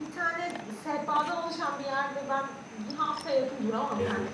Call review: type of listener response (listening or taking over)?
taking over